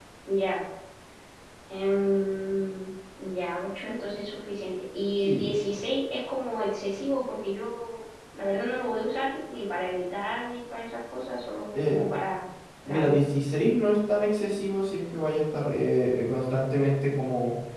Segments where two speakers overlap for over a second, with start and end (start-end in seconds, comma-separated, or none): none